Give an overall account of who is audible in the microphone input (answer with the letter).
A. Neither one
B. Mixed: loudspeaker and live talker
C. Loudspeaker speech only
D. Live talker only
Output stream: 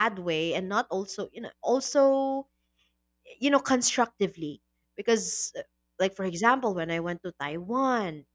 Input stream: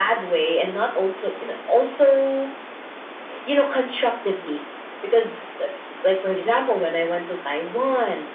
C